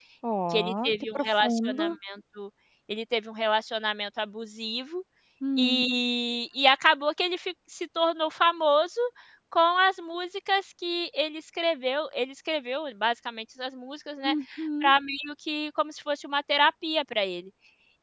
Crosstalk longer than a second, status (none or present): present